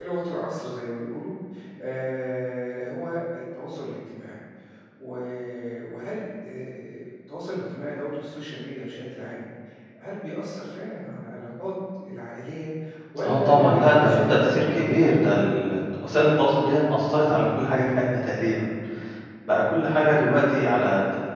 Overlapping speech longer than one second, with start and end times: 13.2-15.1

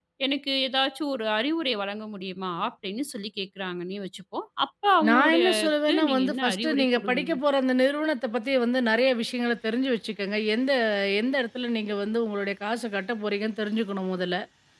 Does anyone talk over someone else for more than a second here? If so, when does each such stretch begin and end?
5.1-7.3

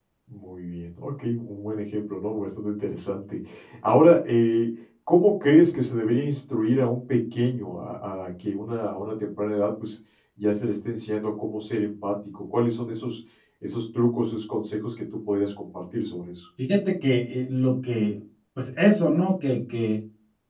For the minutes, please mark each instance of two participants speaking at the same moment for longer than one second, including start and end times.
none

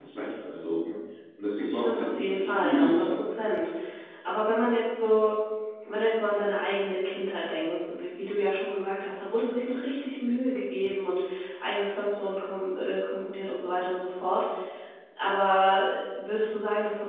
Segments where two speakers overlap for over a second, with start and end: 1.6-3.2

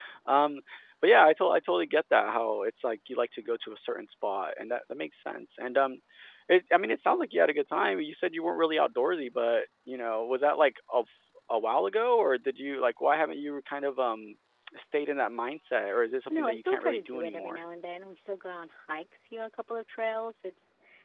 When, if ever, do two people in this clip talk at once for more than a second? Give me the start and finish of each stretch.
16.3-17.6

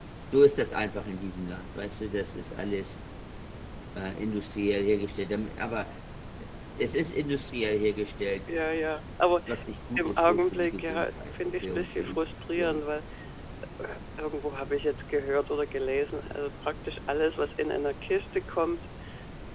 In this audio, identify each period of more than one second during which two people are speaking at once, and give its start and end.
10.0-12.2

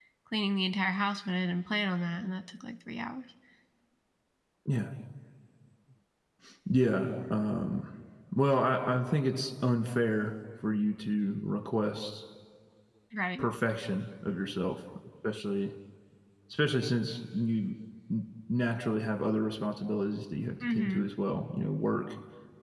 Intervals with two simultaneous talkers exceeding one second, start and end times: none

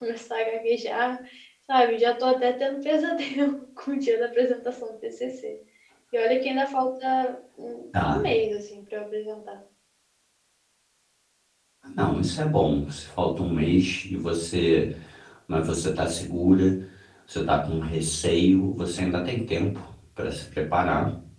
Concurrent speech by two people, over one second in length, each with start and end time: none

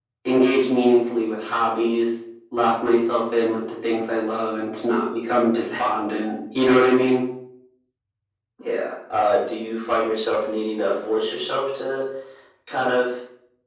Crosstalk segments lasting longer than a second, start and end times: none

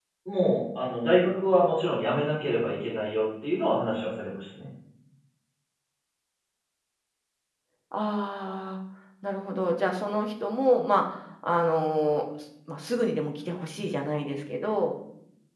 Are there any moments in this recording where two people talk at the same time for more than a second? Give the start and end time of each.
none

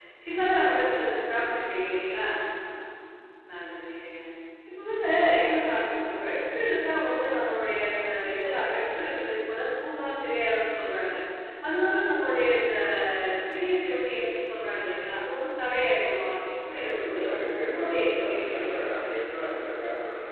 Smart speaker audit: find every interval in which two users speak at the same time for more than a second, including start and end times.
16.8-18.8

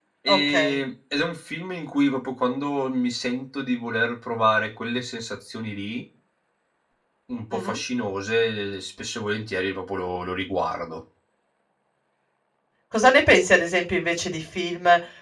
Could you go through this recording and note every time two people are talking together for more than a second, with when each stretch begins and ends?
none

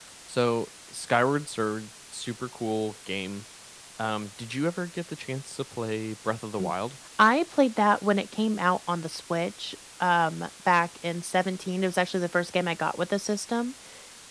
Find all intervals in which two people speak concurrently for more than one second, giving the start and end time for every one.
none

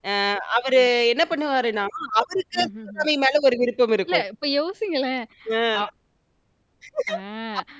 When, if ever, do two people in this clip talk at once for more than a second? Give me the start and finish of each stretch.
none

